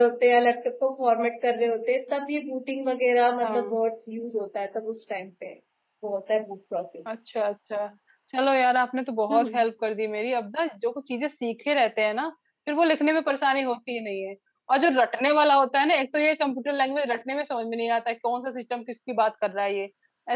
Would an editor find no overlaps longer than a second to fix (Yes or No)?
Yes